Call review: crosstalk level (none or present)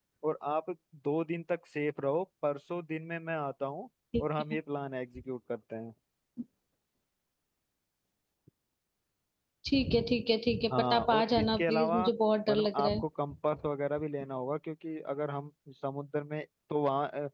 present